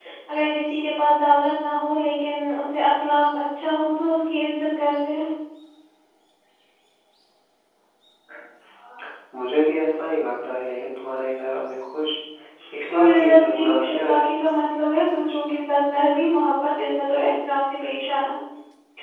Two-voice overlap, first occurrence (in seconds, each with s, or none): 13.0 s